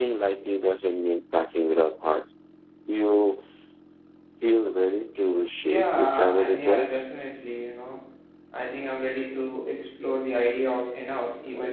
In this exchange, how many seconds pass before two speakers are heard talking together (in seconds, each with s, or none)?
5.6 s